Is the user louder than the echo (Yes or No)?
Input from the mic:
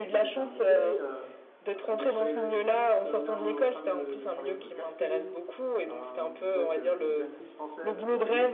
No